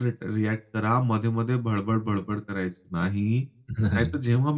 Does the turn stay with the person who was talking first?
Yes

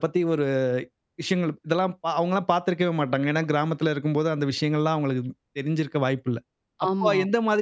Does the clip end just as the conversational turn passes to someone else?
No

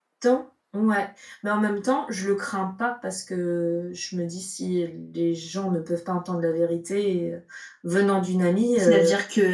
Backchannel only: No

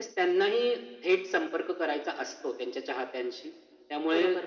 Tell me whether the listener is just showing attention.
No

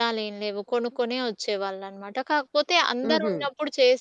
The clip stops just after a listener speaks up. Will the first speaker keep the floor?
Yes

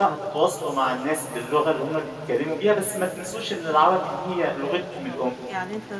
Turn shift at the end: Yes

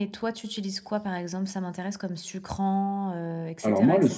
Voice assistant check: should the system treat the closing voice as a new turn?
Yes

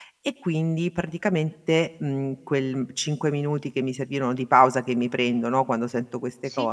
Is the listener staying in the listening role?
Yes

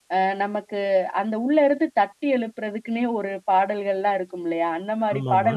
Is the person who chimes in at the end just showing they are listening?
Yes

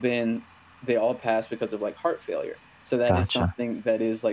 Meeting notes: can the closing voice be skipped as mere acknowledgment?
Yes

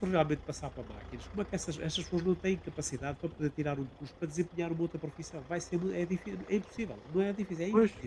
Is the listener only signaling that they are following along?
No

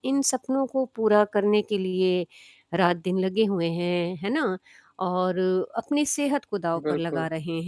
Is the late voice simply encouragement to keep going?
Yes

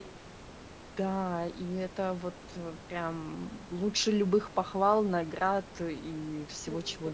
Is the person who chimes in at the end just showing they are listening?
No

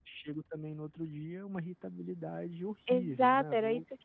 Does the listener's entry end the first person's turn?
Yes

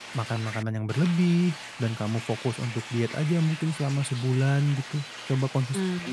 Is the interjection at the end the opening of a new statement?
No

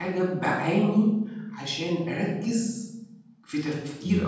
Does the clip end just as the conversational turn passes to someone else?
No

